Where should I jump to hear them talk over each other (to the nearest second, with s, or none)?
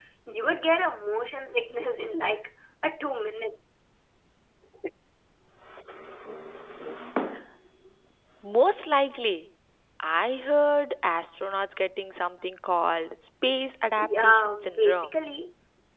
14 s